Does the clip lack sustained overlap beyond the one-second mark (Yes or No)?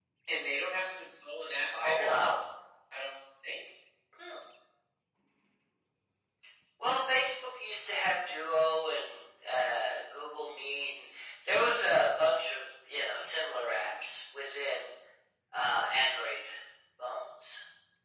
Yes